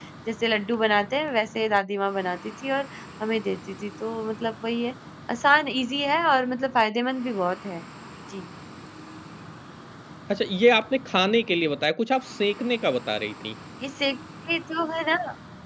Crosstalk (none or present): none